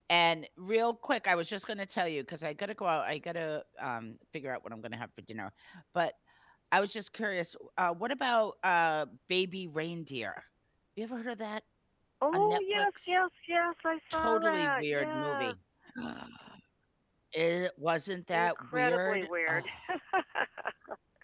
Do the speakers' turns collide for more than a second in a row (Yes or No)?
Yes